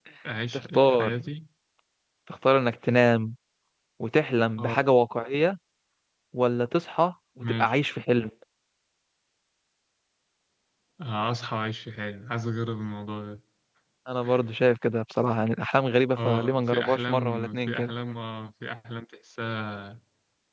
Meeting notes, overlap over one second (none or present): present